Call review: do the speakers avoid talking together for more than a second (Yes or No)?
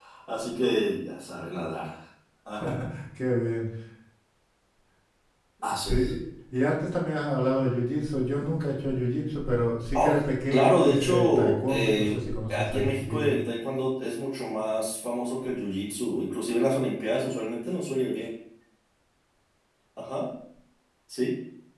No